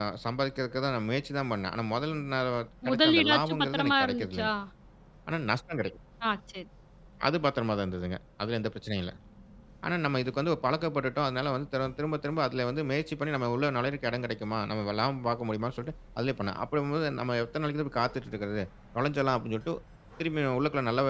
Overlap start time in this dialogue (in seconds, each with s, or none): 2.8 s